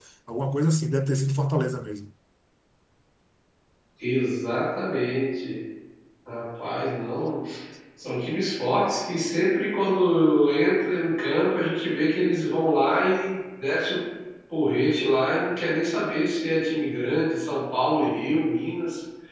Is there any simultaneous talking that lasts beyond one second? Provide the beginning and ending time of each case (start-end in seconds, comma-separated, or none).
none